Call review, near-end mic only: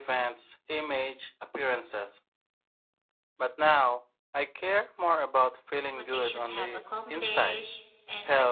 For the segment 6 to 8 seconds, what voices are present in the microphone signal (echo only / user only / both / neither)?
both